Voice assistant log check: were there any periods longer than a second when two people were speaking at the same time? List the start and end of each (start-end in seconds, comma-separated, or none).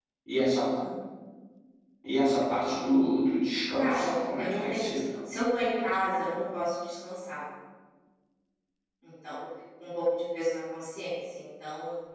3.8-5.0